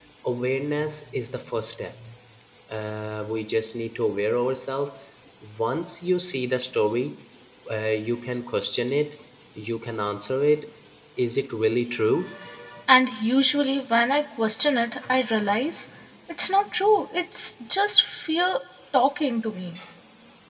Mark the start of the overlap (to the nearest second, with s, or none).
none